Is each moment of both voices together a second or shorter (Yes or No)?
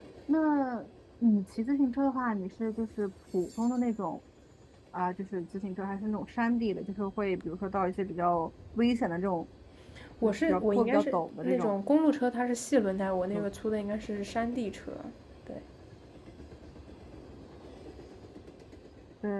No